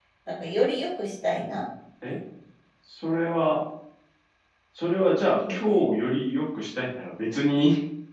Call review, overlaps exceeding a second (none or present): none